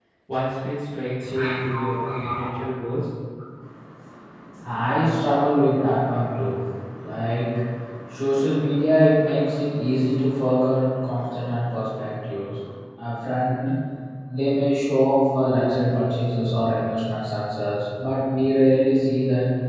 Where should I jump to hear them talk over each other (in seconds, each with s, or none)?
1.2 s